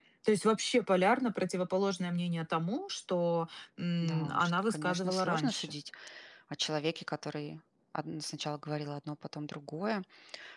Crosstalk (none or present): present